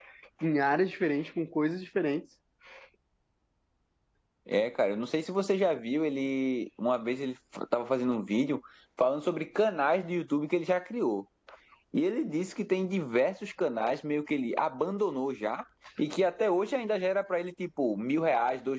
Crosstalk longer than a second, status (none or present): none